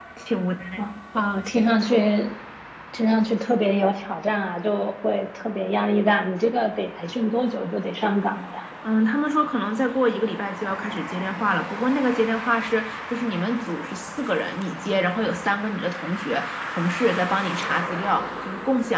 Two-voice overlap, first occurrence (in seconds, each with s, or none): none